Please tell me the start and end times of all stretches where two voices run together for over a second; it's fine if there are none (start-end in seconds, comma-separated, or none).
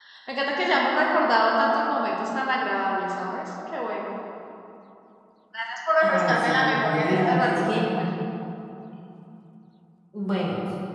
6.0-7.8